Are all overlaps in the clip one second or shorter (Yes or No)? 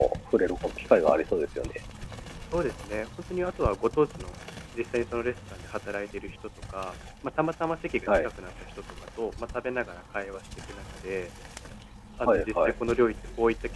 Yes